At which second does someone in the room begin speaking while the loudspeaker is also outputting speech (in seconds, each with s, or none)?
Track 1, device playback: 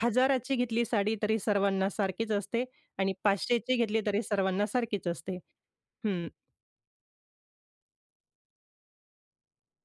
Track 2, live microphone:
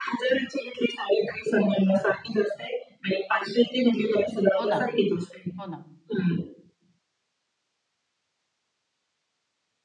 4.6 s